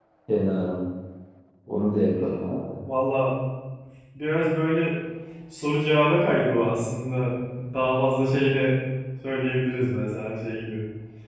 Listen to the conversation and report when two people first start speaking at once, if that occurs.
none

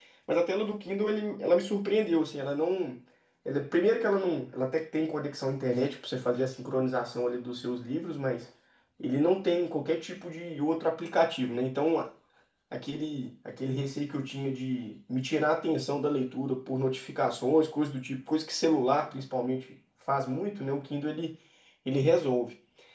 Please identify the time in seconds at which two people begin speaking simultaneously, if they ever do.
none

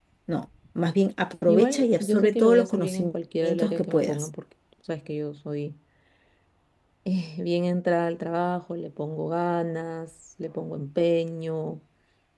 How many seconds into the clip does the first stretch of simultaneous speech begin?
1 s

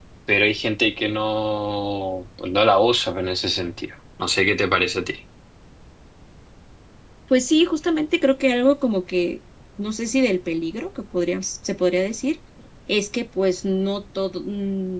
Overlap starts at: none

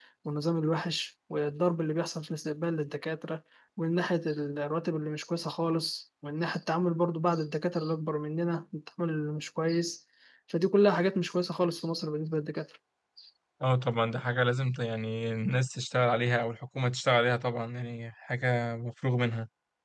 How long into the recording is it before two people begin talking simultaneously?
none

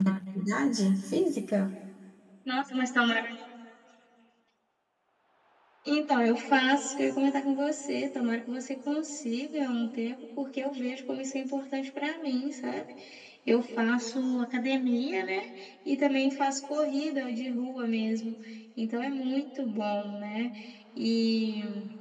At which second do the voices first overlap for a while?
none

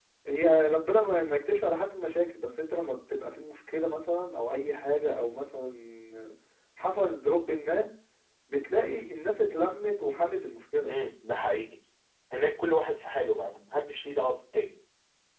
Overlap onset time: none

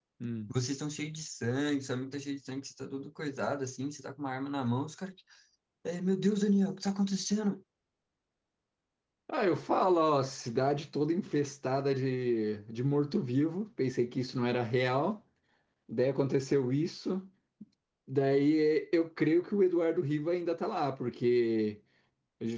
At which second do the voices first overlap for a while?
none

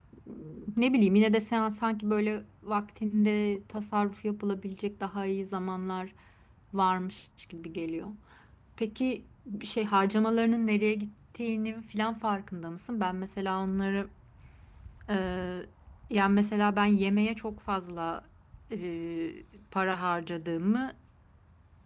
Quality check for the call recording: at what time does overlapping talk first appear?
none

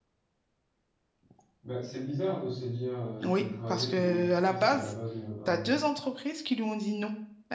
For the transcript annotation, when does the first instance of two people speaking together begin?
3 s

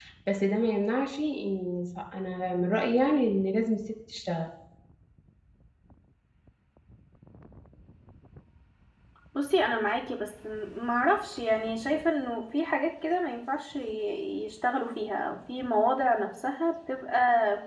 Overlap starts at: none

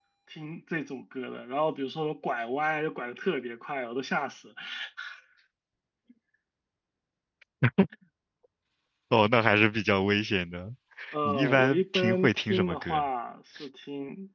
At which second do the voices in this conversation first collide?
11 s

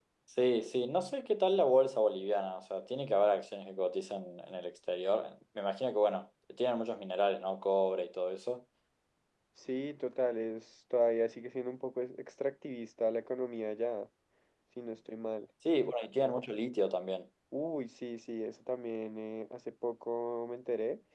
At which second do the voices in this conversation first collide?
none

